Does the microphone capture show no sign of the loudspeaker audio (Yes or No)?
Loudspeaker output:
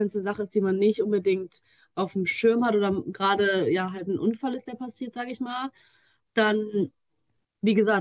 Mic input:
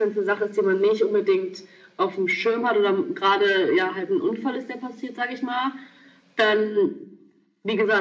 No